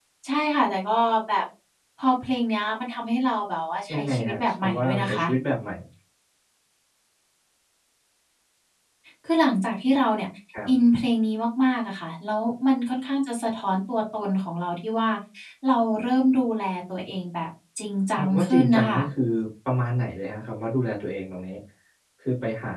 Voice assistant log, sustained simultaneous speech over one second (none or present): present